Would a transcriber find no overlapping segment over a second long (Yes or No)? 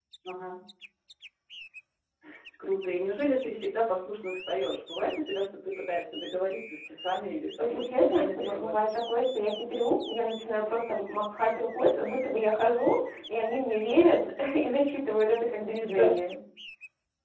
No